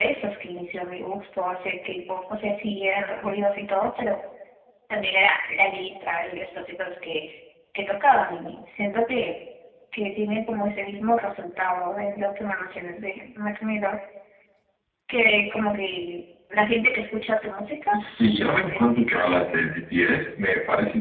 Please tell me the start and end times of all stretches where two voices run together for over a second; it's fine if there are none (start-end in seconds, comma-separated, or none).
17.9-19.5